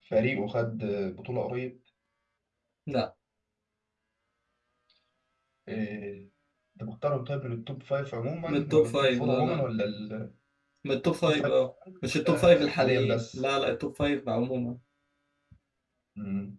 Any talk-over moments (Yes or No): Yes